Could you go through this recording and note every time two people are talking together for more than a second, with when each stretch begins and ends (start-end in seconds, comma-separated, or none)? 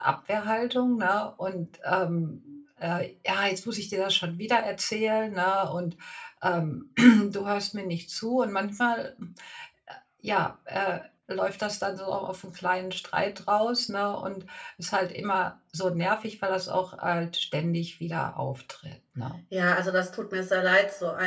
none